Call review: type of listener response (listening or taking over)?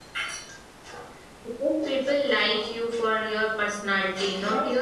taking over